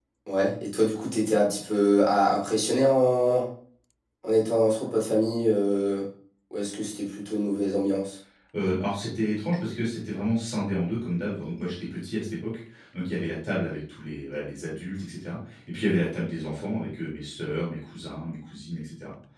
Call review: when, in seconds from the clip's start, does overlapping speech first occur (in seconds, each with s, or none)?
none